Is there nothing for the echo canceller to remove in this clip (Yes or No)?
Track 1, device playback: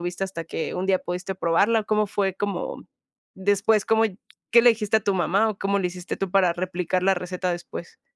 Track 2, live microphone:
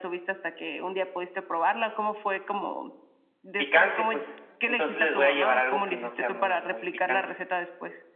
No